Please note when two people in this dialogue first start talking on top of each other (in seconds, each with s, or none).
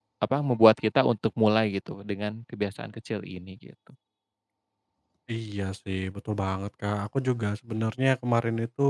none